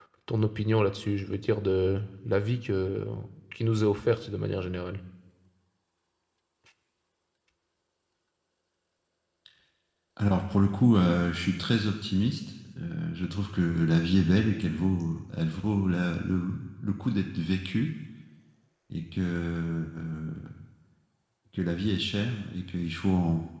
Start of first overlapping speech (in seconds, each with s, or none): none